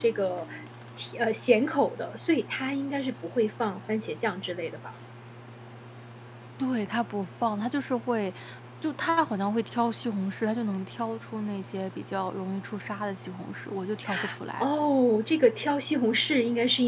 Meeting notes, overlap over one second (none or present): none